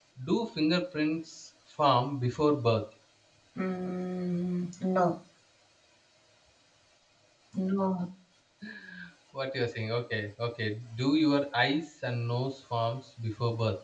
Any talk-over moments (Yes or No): No